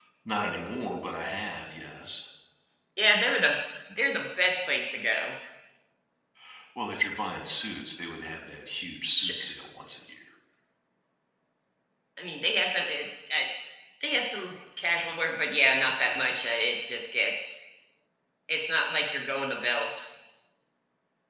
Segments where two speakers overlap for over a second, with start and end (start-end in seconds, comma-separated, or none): none